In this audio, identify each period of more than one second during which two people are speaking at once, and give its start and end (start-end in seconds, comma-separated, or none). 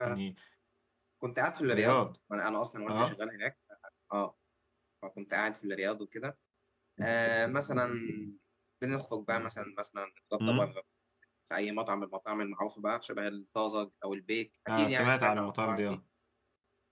14.7-16.0